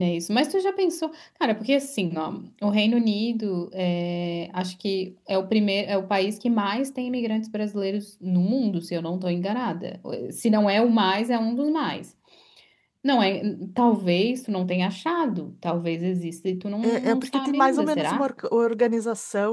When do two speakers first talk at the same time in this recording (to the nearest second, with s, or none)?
17 s